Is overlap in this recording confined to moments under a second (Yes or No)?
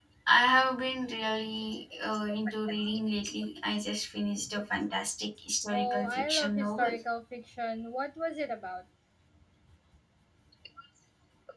No